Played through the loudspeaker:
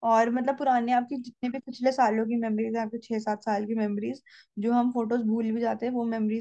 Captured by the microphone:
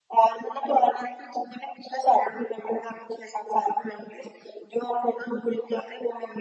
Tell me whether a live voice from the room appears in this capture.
No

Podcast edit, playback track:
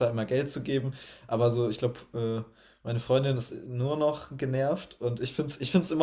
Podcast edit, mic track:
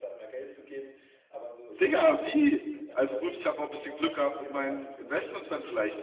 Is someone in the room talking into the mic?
Yes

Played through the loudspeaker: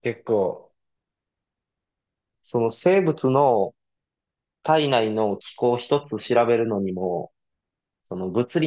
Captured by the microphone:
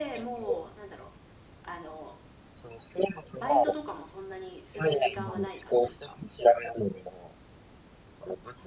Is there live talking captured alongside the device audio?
Yes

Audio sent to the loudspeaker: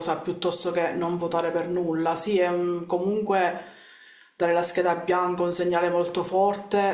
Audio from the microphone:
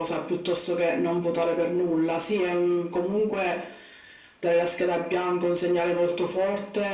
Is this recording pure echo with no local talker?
Yes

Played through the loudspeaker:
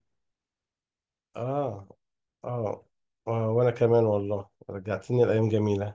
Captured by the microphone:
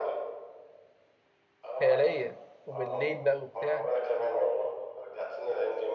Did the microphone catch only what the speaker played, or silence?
No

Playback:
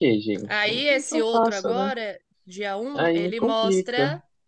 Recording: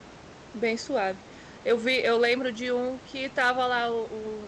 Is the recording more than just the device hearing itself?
Yes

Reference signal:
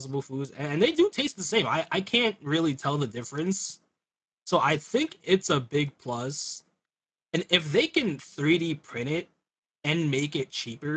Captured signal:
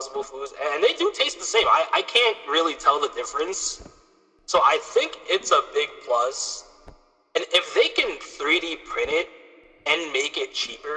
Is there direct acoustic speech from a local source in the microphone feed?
No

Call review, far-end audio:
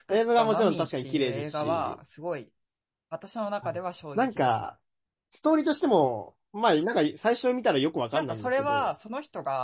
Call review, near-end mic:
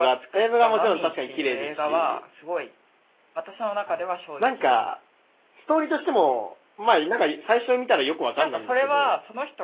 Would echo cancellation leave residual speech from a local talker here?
No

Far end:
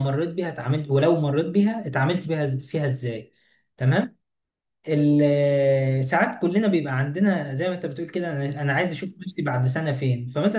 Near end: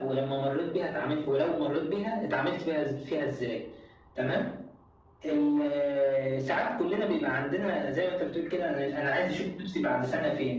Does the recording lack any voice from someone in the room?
Yes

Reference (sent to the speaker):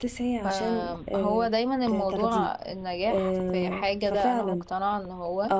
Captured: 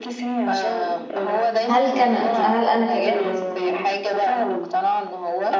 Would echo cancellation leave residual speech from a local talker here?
Yes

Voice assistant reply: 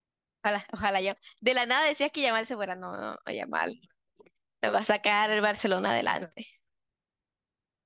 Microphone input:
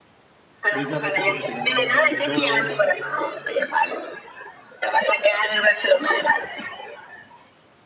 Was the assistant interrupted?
Yes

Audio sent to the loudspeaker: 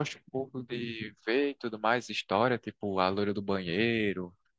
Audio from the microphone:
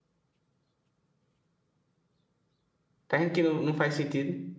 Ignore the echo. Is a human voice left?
Yes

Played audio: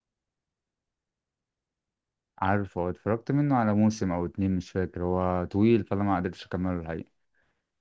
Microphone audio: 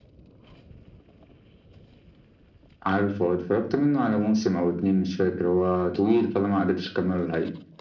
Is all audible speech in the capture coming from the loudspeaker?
Yes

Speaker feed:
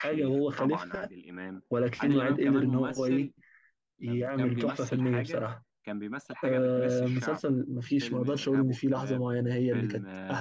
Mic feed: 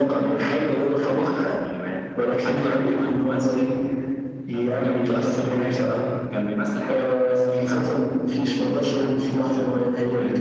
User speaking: No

